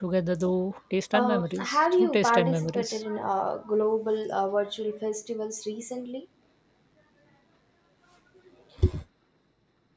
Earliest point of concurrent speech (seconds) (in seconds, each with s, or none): 1.1 s